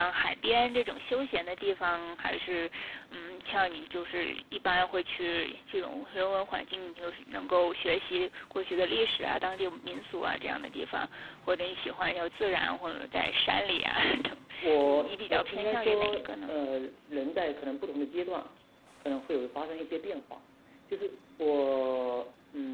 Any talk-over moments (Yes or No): Yes